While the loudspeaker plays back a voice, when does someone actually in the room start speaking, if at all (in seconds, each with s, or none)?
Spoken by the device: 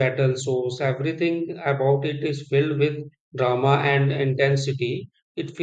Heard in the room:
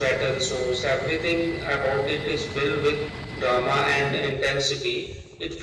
none